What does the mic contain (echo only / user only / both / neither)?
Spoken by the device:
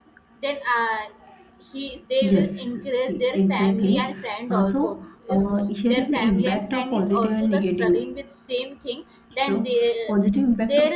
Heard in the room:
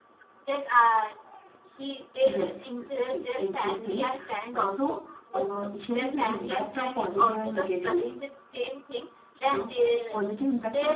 echo only